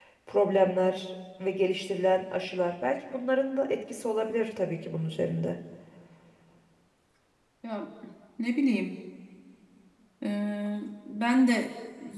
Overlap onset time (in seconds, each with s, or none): none